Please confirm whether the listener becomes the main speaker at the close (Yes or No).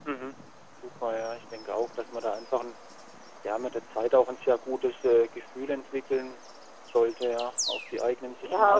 Yes